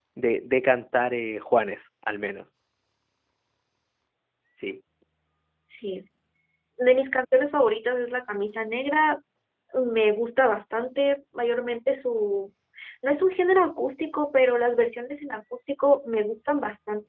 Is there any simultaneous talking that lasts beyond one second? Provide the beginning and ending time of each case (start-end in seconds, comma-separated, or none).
none